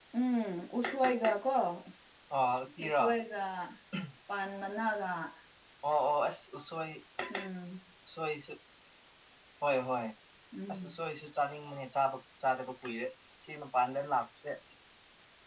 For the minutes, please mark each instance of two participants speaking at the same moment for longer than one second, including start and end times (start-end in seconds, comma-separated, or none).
none